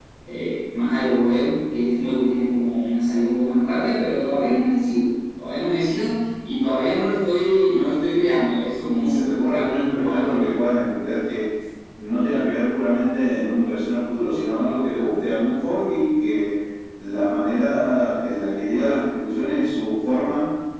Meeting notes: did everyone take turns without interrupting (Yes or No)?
No